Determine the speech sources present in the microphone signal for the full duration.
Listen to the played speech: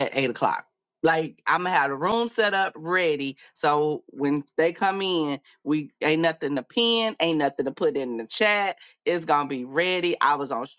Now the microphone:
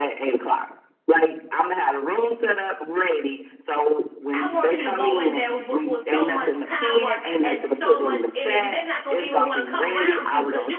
both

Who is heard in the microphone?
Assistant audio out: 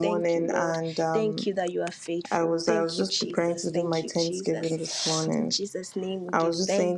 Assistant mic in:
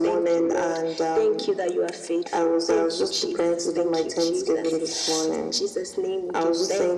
echo only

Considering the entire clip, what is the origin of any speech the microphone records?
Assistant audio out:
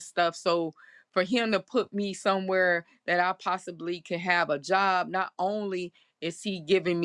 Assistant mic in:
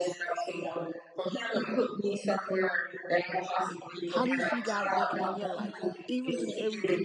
both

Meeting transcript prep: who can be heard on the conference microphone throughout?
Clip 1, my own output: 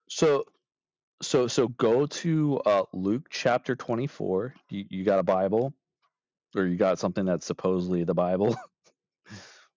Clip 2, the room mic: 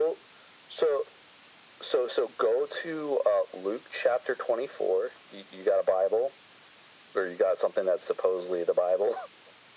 echo only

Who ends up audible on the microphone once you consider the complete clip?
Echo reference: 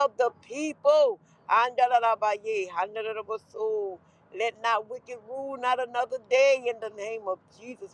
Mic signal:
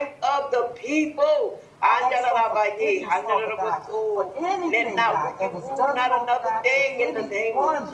both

